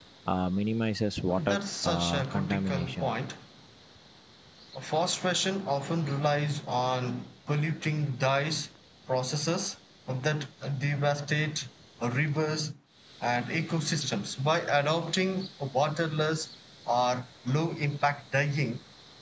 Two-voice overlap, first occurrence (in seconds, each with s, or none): 1.3 s